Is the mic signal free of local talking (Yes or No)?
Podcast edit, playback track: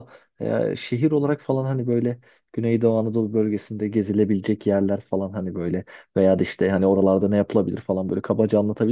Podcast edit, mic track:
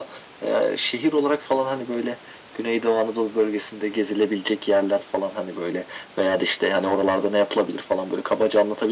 Yes